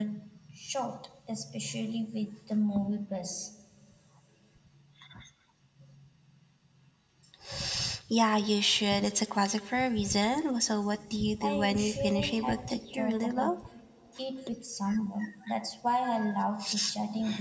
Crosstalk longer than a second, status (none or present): present